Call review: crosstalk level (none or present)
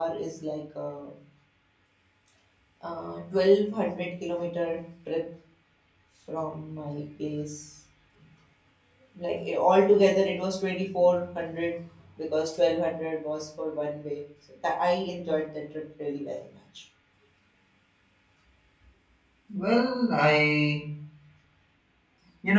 none